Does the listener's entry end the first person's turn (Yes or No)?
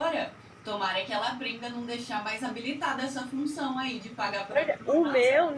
Yes